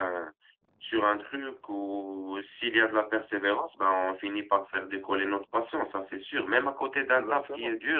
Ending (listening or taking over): listening